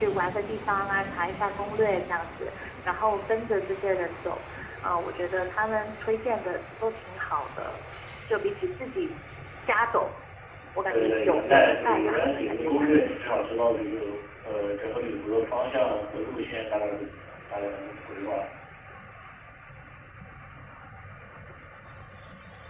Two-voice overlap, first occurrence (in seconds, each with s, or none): 10.9 s